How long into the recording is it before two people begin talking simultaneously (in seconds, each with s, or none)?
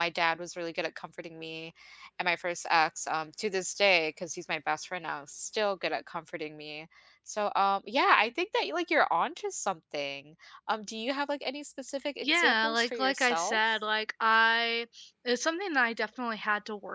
12.2 s